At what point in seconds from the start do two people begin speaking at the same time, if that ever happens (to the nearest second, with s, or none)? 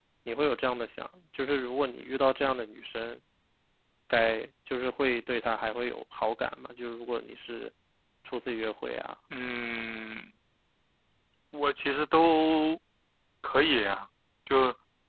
none